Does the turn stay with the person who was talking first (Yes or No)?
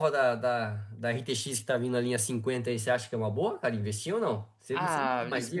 No